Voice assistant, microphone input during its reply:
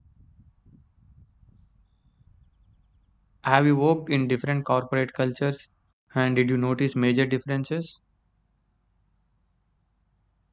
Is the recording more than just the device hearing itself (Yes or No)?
Yes